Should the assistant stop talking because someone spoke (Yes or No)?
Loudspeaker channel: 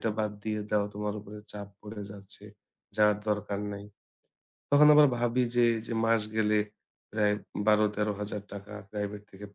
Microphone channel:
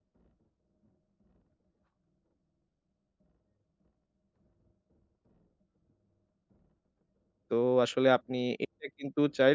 Yes